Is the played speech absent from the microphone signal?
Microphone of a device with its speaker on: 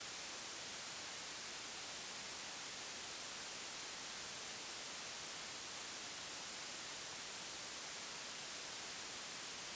Yes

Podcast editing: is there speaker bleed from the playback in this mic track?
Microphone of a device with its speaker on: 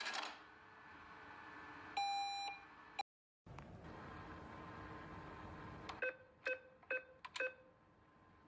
No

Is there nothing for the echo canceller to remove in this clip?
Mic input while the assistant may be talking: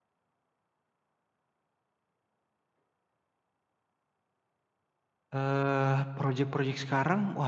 Yes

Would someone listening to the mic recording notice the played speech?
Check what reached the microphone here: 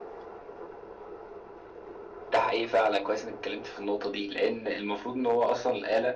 Yes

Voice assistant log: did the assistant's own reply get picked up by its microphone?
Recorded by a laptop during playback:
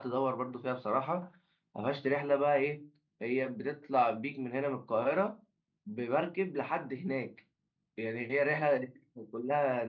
No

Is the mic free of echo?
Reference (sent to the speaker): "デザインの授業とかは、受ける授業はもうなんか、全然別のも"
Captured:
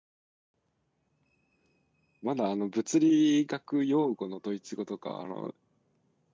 Yes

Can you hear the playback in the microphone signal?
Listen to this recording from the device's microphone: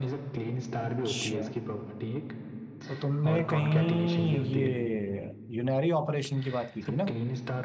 Yes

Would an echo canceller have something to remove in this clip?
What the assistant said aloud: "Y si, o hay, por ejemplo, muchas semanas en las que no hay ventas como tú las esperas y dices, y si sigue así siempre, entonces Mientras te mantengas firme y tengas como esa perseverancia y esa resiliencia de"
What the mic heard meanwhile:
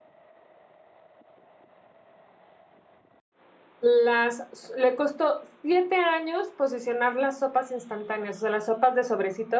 No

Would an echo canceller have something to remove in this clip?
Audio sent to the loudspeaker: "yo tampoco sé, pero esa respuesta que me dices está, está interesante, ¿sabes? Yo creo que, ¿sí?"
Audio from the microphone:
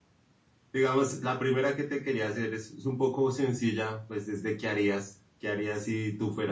No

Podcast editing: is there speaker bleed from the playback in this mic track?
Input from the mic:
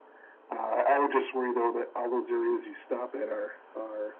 Yes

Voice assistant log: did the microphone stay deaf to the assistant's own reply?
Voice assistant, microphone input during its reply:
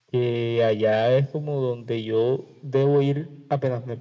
No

